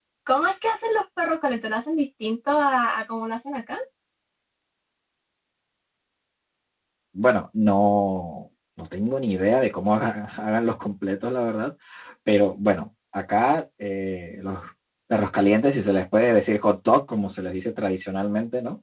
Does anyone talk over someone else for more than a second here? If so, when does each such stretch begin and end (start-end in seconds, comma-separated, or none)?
none